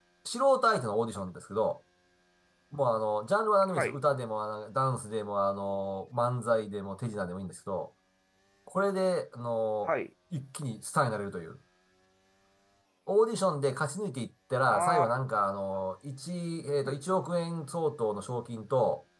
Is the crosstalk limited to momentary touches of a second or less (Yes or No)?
Yes